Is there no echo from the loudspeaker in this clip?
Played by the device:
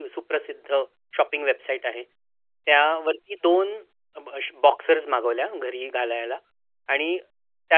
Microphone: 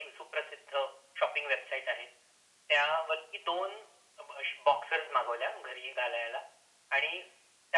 No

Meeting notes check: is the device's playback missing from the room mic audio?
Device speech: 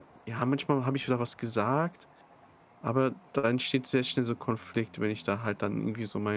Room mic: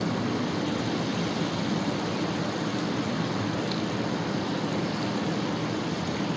Yes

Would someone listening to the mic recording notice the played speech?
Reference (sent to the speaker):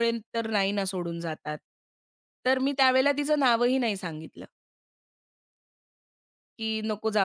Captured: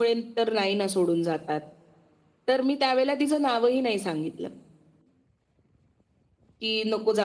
Yes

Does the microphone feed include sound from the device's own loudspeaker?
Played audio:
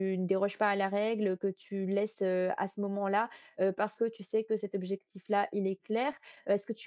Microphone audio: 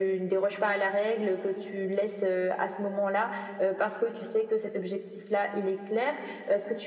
Yes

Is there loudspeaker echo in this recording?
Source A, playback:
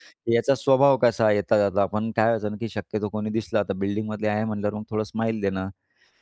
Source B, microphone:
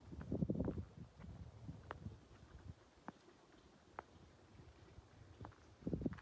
No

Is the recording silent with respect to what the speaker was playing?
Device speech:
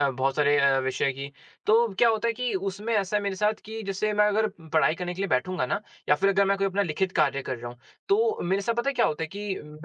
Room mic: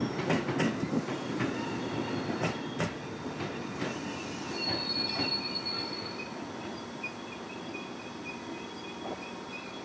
Yes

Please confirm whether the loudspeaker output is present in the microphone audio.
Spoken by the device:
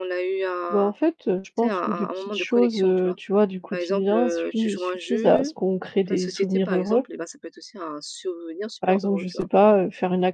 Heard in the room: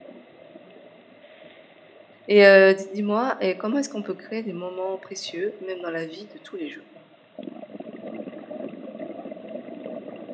No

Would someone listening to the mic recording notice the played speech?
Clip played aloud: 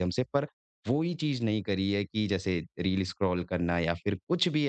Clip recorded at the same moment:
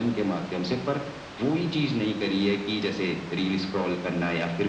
Yes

